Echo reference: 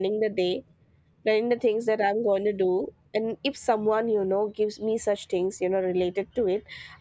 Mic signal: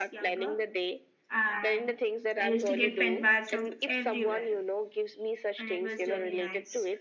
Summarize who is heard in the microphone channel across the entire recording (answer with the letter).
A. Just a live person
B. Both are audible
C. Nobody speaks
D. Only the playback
B